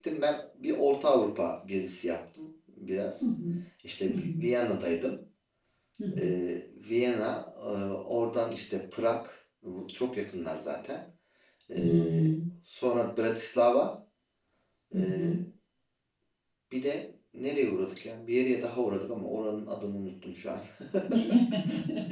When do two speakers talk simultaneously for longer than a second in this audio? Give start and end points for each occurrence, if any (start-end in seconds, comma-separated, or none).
none